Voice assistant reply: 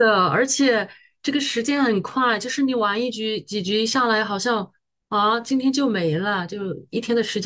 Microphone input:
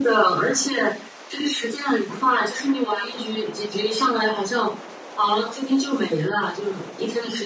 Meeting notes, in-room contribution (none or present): none